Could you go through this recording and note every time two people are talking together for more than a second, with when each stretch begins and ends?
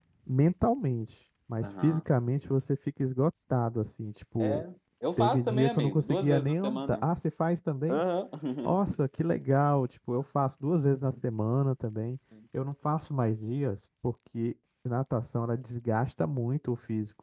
5.2-7.0

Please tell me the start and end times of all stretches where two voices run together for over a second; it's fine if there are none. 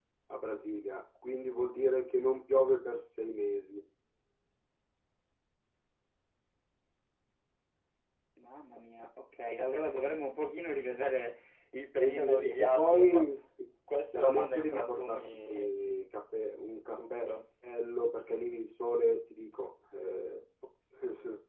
11.9-13.2, 14.2-15.7

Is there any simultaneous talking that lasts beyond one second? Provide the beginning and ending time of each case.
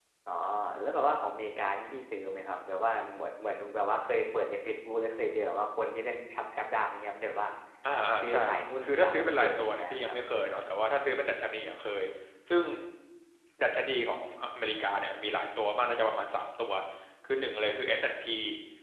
8.8-10.2

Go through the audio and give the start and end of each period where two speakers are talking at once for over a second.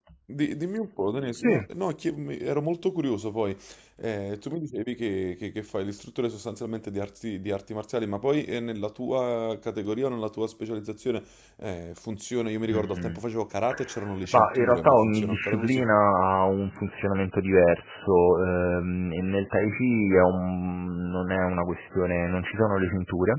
14.3-15.9

